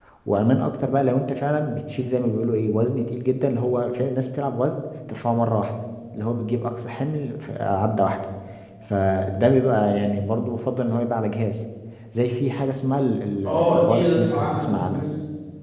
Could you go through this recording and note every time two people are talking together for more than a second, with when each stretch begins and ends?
13.4-15.1

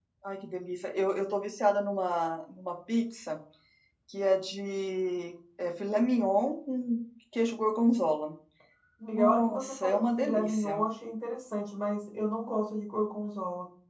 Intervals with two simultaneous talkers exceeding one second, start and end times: 9.2-10.8

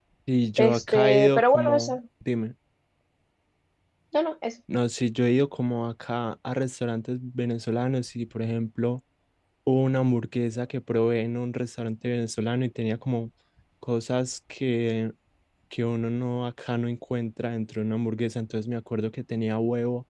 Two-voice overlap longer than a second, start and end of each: 0.6-2.0

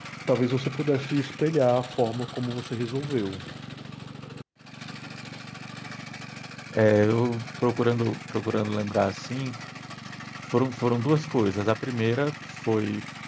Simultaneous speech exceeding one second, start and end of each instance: none

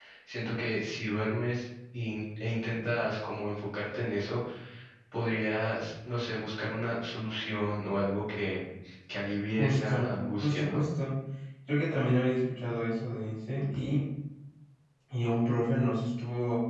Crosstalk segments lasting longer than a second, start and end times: 9.6-10.8

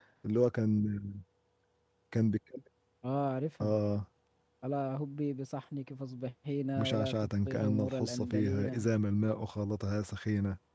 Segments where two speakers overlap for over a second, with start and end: 6.8-8.9

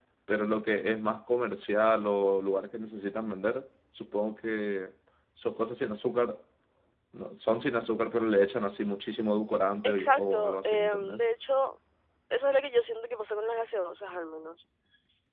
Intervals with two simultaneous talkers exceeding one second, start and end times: 9.8-11.2

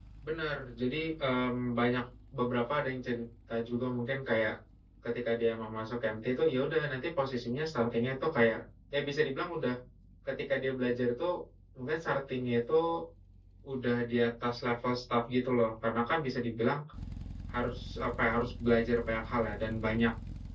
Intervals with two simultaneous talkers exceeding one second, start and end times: none

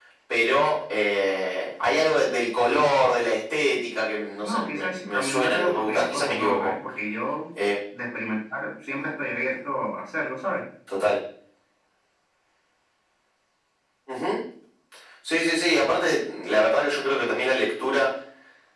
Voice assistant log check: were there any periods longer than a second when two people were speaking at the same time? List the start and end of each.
4.4-6.7

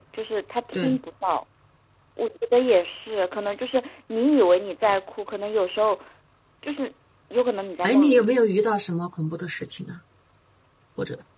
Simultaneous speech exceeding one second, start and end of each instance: none

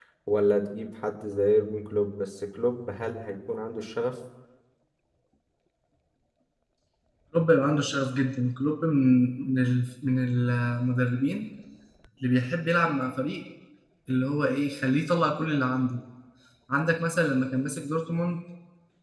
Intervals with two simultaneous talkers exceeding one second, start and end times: none

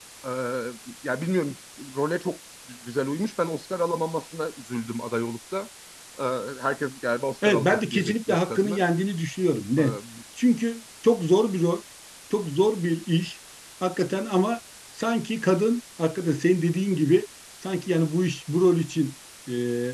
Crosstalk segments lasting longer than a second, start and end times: 7.5-8.8

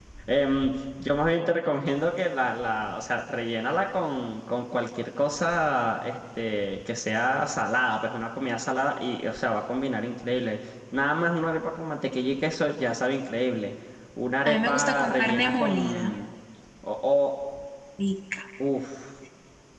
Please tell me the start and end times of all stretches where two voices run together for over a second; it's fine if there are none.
14.4-16.1

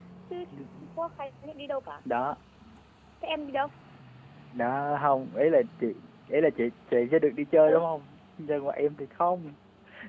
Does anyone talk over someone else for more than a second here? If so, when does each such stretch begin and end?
none

